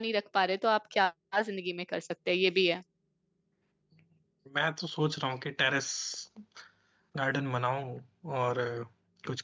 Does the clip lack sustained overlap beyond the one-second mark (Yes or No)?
Yes